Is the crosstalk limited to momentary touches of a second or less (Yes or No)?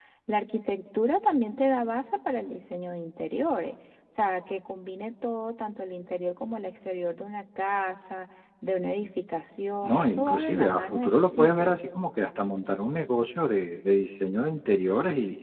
No